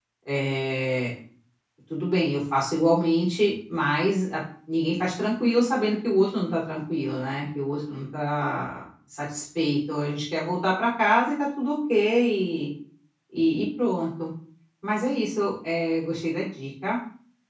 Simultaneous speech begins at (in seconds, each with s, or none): none